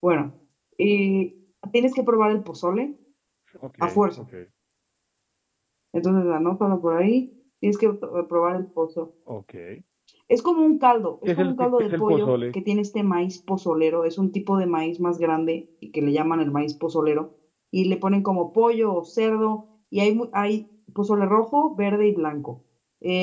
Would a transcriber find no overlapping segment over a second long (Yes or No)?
No